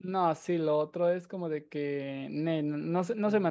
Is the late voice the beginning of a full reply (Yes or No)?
Yes